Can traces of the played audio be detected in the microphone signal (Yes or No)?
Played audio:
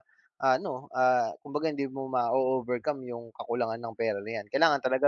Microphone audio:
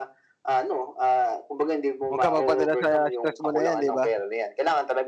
Yes